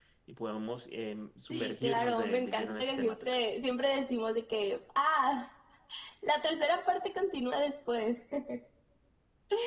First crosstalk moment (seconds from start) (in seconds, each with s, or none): 1.5 s